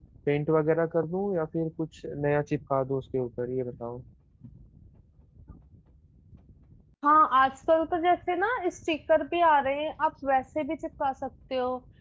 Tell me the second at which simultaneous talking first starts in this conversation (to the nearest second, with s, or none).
none